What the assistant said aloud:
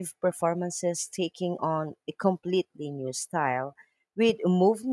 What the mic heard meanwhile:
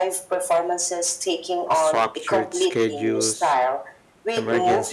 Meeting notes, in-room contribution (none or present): present